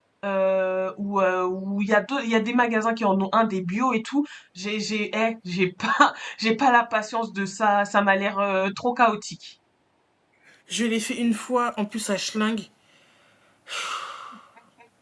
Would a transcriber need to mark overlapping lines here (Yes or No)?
No